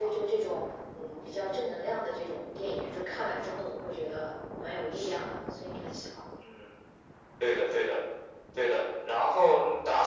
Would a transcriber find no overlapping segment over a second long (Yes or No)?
Yes